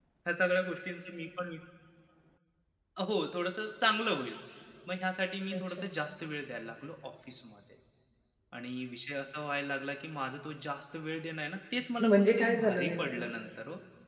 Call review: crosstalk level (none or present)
present